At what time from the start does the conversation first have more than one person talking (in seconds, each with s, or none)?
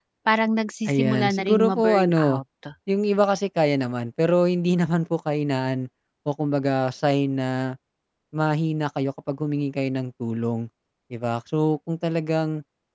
0.9 s